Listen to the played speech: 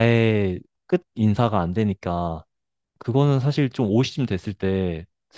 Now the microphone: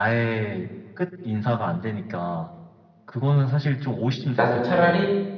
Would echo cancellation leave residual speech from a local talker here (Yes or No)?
Yes